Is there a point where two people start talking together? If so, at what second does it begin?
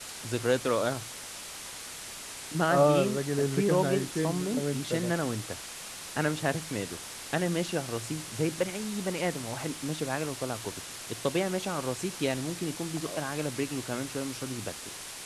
2.7 s

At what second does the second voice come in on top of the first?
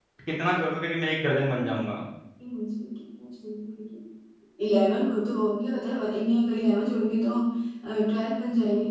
none

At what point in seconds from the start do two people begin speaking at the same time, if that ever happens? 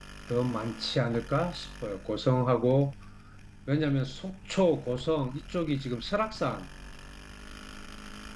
none

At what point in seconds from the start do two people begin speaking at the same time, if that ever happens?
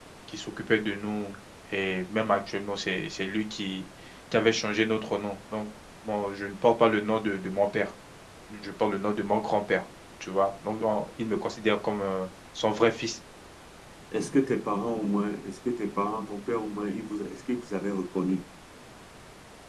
none

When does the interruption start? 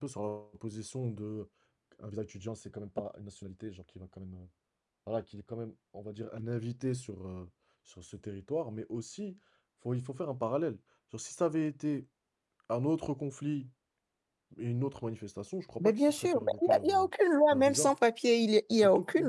15.8 s

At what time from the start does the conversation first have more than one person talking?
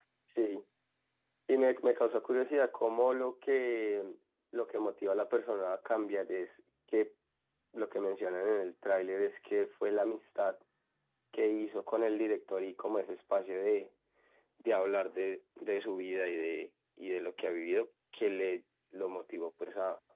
none

